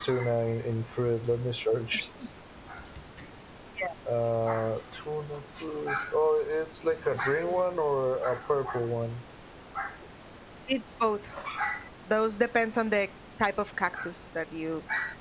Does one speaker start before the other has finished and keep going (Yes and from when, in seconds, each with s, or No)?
No